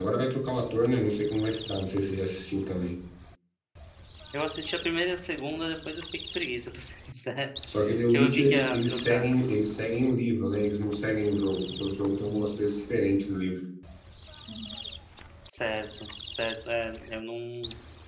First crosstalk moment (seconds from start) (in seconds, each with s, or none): 8.1 s